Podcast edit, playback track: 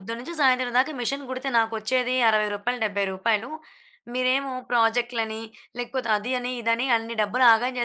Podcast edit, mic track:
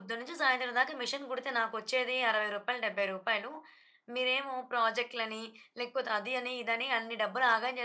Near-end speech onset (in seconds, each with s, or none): none